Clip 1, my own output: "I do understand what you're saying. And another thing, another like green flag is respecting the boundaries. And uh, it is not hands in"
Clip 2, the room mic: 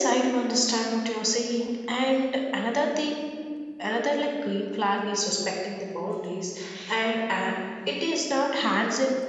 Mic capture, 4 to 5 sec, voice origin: echo only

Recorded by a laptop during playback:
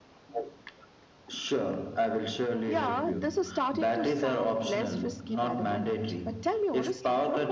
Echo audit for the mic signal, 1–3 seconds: echo only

